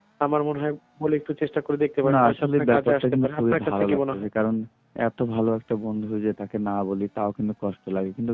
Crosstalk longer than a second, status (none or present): present